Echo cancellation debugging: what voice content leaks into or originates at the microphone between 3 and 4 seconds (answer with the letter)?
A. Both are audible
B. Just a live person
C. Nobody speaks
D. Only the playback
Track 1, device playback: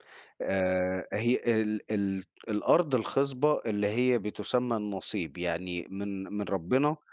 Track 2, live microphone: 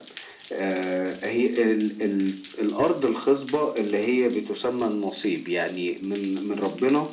D